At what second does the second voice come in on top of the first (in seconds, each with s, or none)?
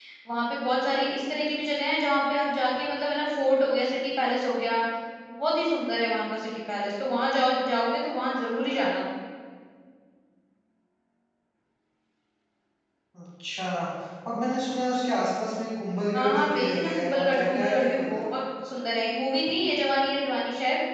16.1 s